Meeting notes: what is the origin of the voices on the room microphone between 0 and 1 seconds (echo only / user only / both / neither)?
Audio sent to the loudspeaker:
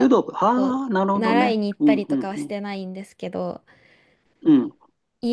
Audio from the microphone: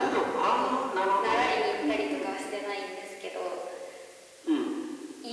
echo only